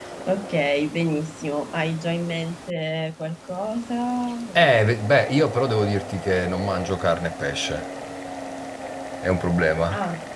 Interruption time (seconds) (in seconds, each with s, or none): none